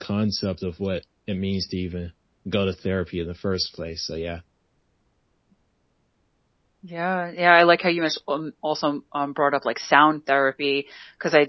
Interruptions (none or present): none